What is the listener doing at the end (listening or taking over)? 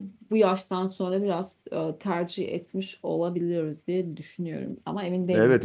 taking over